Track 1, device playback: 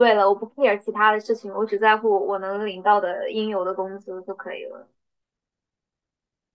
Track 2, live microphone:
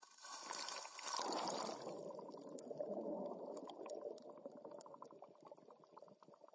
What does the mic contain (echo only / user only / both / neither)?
neither